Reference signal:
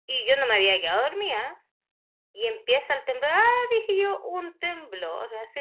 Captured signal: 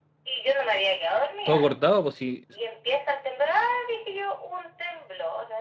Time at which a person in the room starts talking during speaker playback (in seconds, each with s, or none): 1.4 s